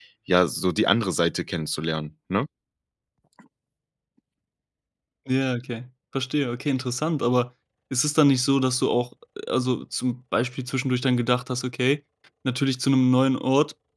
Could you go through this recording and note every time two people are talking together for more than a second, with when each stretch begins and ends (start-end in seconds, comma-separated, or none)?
none